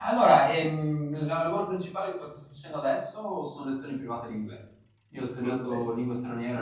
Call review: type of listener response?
listening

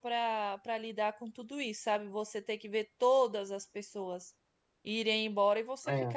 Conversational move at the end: listening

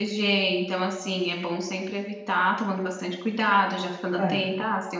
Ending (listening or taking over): listening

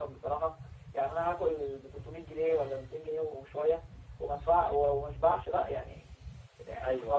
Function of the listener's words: taking over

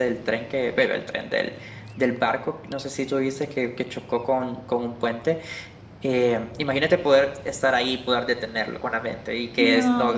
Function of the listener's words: taking over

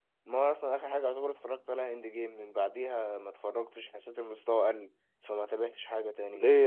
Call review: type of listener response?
taking over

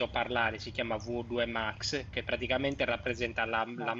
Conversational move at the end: listening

